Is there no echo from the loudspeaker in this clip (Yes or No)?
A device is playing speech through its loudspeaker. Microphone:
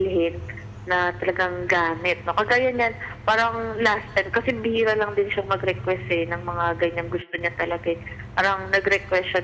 No